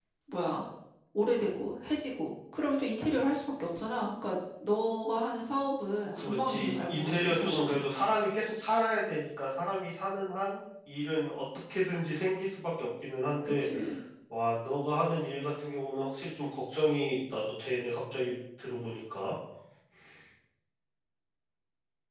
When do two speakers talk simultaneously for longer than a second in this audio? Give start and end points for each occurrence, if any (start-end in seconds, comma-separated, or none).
6.1-7.8